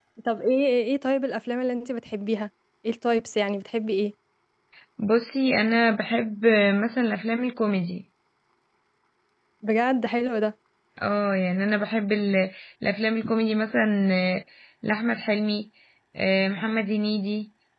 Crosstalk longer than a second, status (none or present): none